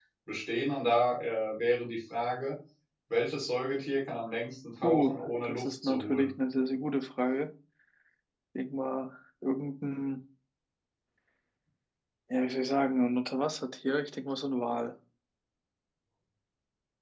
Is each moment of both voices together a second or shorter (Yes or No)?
No